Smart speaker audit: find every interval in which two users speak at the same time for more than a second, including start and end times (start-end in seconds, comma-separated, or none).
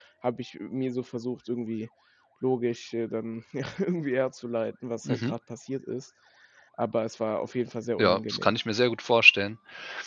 none